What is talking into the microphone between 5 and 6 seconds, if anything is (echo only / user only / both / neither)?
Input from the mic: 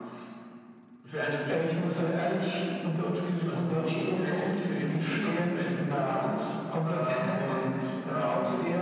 echo only